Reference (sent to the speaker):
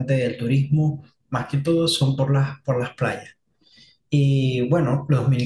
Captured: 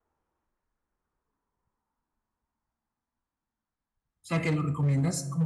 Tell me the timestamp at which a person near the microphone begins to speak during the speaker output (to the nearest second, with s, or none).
4 s